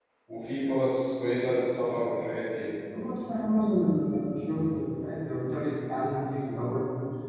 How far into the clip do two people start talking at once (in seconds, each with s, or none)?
none